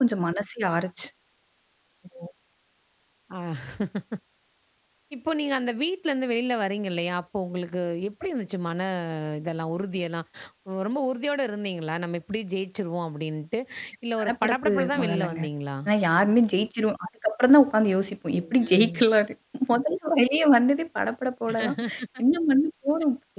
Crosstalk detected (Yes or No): Yes